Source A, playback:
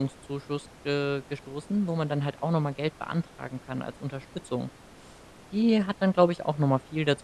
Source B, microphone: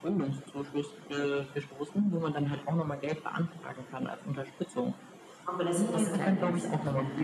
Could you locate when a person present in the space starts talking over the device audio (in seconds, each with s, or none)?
5.4 s